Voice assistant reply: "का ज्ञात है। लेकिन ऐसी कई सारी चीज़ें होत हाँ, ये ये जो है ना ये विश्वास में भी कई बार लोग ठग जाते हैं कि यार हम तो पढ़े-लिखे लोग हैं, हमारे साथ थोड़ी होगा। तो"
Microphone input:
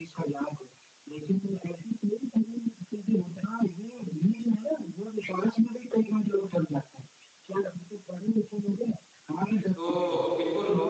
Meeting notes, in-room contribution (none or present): present